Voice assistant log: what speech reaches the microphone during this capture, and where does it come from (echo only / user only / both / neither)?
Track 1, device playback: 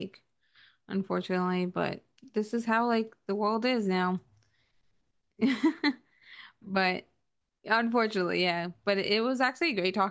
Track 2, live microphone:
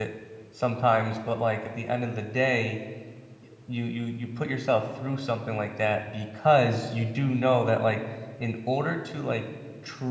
user only